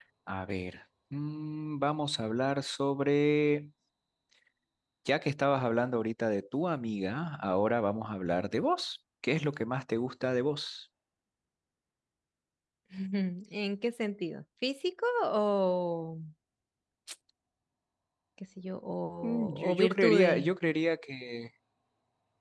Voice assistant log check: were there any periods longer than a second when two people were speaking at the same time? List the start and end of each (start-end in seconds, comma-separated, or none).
19.2-20.5